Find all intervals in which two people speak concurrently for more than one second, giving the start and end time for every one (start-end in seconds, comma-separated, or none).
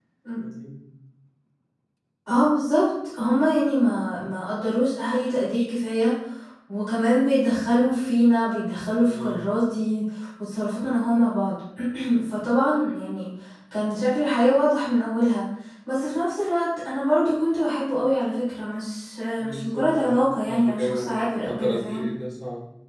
19.4-22.0